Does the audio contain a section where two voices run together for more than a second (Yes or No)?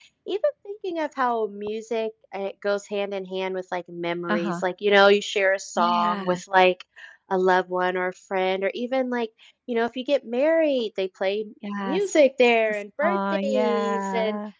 Yes